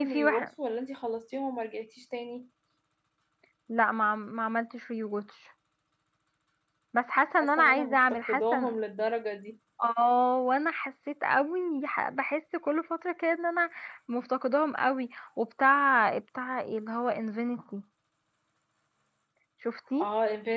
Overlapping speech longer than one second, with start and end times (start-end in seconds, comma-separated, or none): 7.4-8.7